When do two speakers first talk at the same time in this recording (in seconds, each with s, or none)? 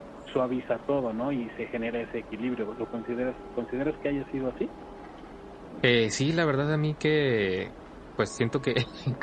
none